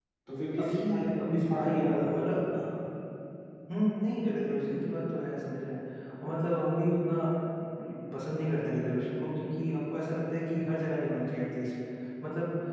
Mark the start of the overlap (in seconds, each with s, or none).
0.6 s